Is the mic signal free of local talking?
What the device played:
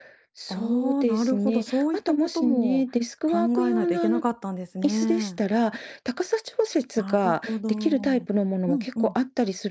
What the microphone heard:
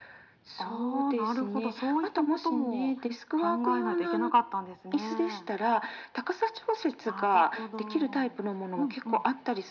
Yes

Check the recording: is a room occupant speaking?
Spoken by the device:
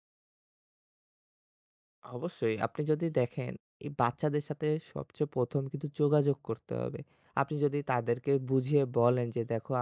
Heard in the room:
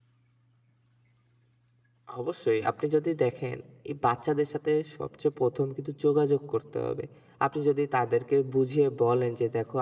No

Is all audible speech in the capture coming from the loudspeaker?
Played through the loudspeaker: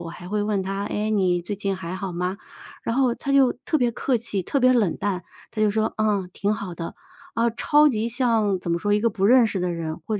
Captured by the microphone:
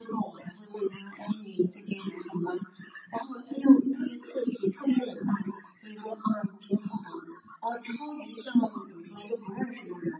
Yes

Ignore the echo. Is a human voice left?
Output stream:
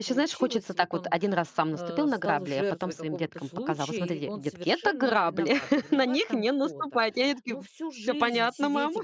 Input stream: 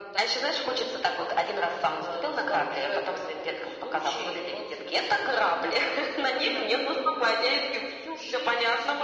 No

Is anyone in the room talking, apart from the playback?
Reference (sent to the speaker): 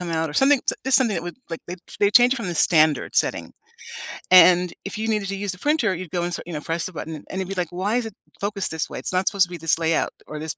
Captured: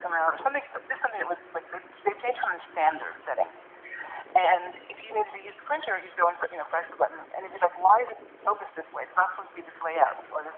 No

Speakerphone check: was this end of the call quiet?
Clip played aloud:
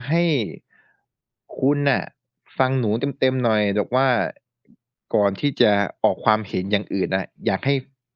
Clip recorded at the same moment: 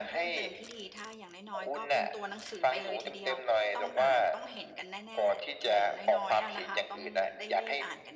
No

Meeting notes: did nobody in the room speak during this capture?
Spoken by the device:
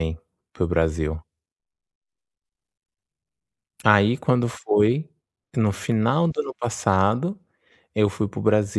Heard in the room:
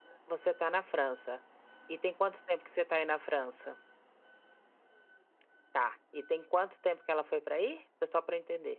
No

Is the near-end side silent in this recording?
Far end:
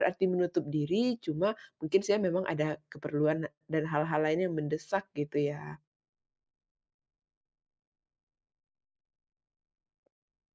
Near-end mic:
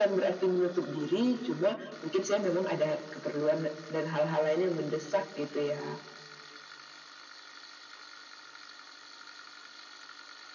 Yes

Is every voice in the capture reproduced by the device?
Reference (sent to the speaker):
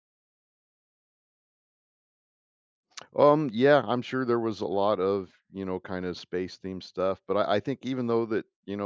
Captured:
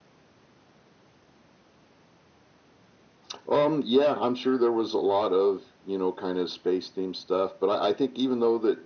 Yes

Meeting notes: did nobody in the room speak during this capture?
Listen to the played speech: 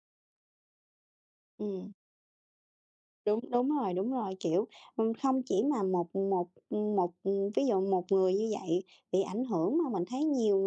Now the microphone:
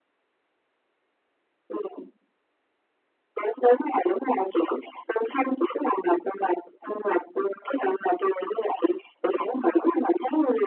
Yes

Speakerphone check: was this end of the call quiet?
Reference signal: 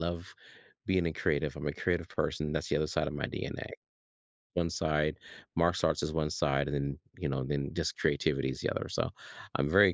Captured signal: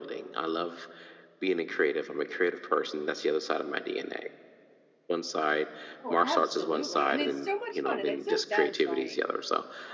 No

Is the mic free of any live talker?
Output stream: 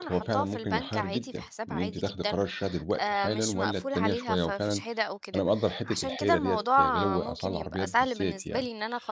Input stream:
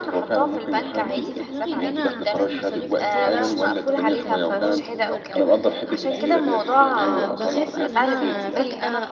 No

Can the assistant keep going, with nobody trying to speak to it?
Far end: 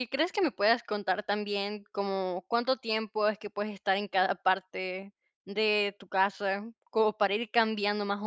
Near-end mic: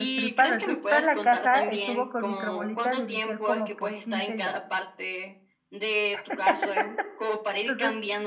No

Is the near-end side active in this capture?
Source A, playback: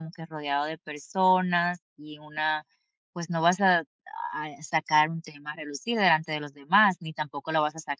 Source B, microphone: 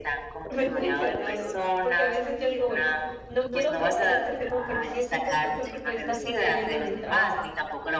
Yes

